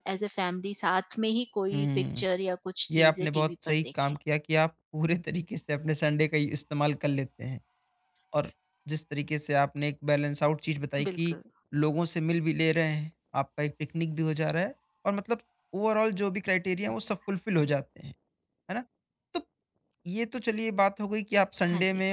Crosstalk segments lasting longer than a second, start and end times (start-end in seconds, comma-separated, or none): 2.9-4.2